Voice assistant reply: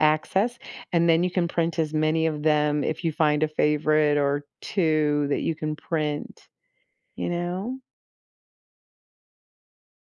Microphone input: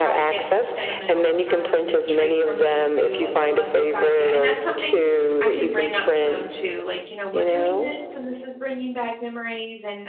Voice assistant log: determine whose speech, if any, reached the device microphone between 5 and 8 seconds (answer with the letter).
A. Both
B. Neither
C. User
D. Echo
A